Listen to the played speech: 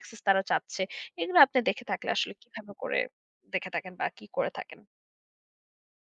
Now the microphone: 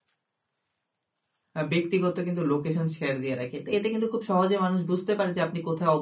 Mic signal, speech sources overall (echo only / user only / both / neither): user only